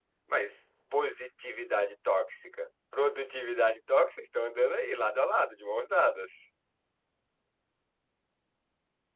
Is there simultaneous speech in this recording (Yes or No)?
No